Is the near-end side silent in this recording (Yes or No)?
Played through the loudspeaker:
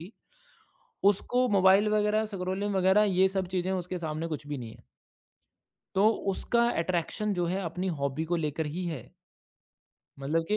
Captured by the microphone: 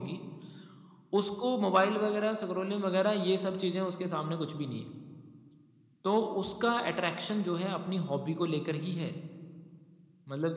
Yes